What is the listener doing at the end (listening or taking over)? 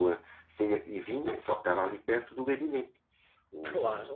taking over